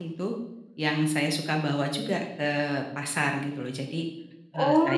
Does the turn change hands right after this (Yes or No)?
Yes